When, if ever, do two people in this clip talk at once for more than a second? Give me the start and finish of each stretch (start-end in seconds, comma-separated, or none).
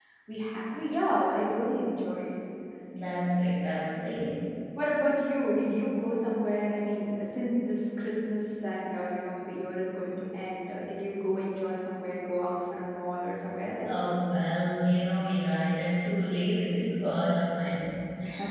none